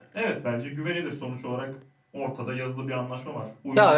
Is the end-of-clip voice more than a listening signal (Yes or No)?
Yes